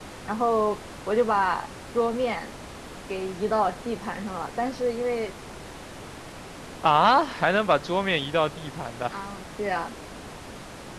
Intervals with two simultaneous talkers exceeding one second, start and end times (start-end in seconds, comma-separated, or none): none